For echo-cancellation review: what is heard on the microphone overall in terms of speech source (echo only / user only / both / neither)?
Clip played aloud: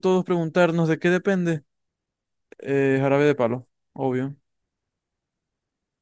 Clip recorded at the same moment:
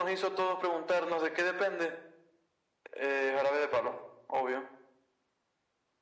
echo only